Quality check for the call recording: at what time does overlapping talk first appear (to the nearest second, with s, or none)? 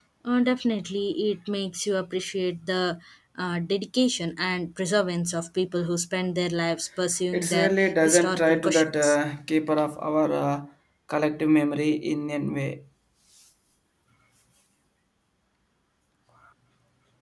7 s